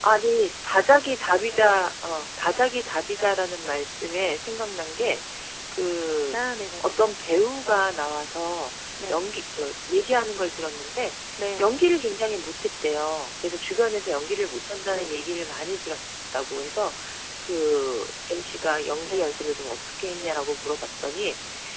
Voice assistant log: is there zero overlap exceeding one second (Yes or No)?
Yes